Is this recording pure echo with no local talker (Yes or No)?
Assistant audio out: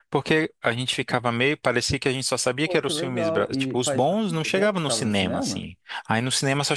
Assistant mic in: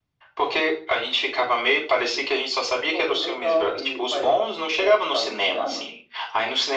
Yes